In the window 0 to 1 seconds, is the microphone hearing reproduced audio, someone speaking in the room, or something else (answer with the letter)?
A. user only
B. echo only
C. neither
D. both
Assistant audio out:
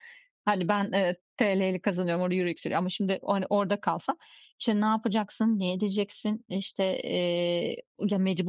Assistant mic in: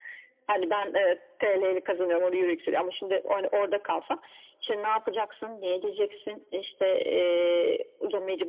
B